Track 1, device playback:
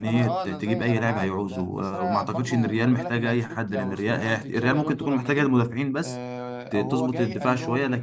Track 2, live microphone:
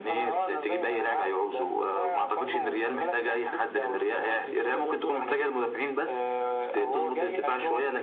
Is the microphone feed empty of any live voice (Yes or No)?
Yes